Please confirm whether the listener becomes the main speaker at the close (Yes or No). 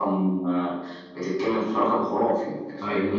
No